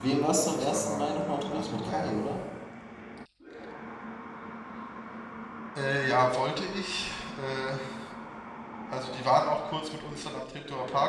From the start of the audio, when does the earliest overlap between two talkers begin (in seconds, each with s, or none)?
0.5 s